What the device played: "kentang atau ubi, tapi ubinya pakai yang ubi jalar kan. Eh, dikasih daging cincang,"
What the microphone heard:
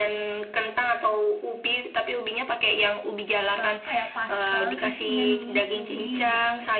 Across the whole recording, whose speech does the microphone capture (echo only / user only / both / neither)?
both